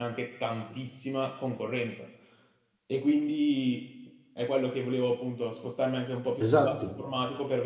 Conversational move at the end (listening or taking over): listening